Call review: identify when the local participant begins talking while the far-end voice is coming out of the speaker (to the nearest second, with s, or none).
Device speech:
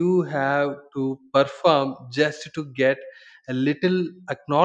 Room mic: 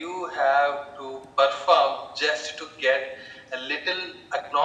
none